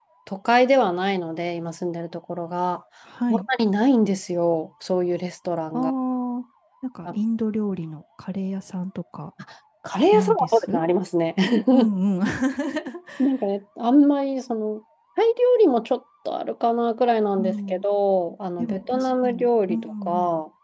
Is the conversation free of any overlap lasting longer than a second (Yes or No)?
No